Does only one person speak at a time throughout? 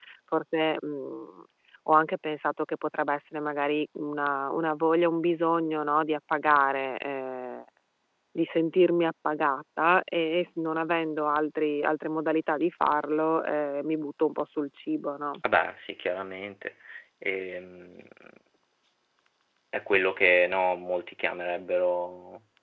Yes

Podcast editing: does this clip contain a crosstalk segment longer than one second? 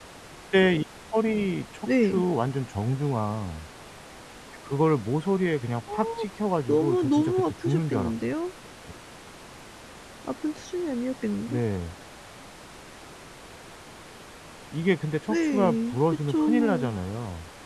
Yes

